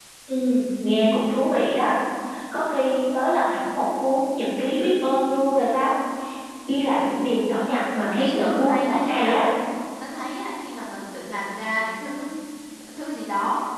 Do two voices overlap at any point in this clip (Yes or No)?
Yes